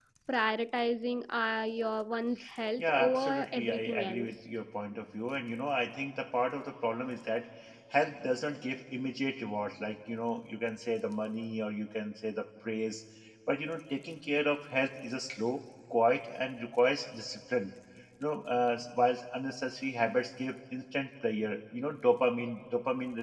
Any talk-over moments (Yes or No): Yes